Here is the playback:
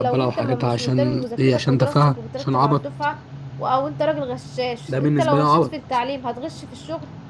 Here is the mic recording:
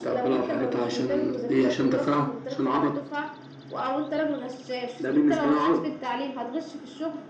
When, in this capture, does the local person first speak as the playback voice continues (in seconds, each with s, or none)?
none